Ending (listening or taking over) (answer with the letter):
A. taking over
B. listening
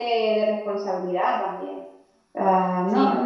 B